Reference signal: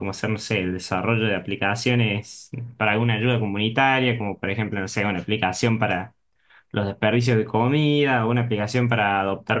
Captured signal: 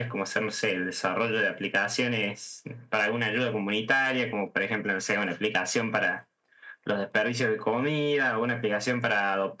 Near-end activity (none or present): none